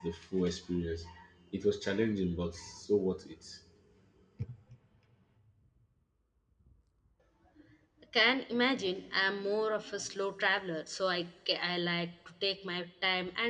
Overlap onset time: none

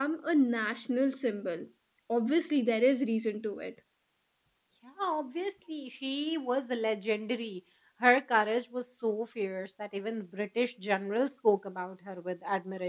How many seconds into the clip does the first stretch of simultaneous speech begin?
none

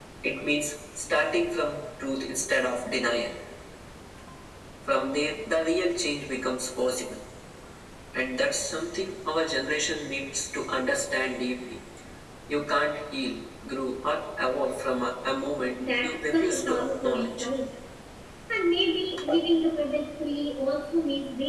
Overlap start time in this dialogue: 15.8 s

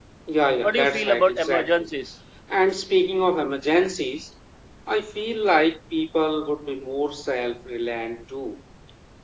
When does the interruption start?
0.6 s

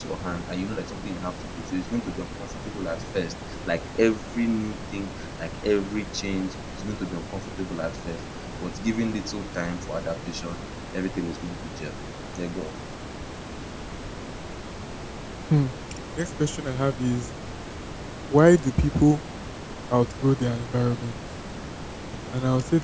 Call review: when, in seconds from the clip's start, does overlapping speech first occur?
none

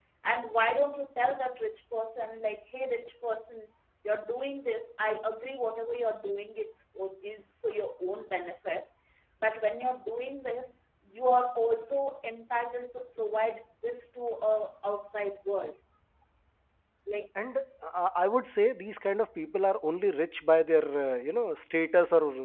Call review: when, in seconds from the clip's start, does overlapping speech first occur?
none

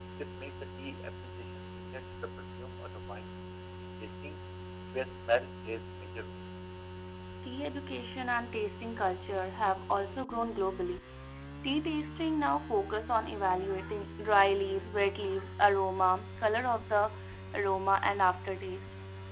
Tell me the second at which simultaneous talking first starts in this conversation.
none

